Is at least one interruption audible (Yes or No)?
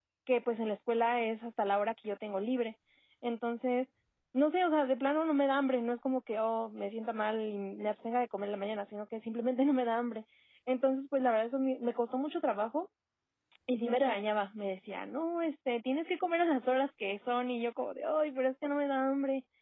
No